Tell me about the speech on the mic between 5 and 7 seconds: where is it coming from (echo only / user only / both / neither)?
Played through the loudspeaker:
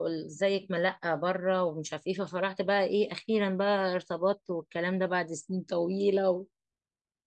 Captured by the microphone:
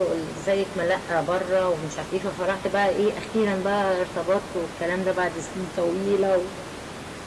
echo only